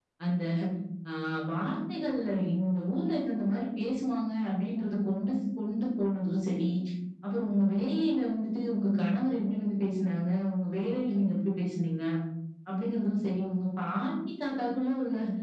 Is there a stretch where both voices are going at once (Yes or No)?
No